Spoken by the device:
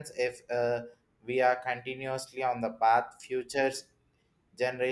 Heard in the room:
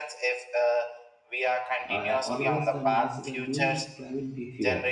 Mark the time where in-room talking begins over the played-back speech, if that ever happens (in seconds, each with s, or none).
1.9 s